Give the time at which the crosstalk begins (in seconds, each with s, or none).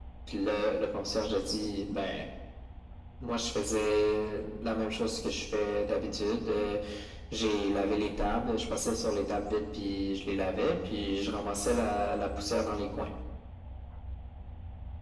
none